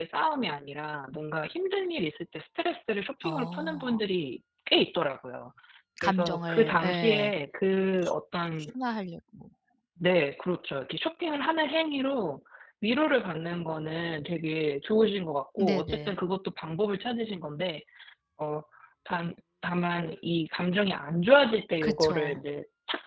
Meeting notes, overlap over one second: present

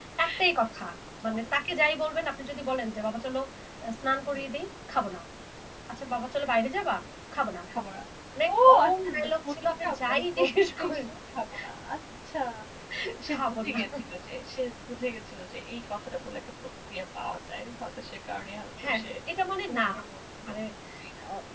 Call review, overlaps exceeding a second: present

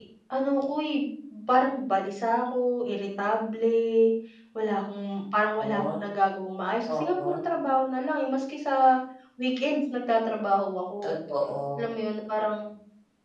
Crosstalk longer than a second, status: none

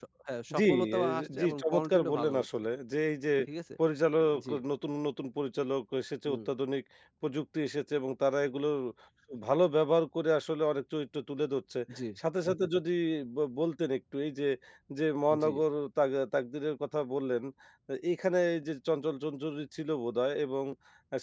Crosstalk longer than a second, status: present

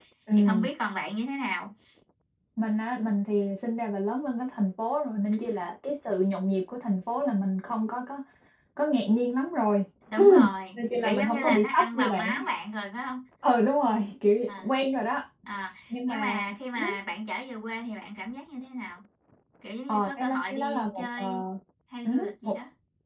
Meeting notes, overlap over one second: present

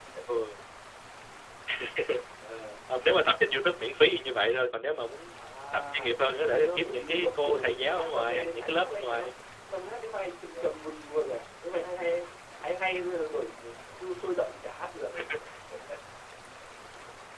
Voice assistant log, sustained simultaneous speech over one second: present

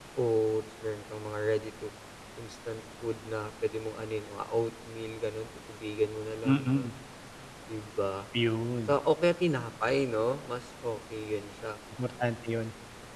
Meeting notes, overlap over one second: none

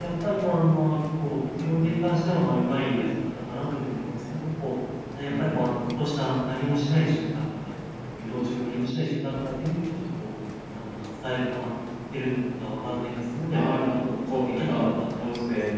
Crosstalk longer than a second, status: present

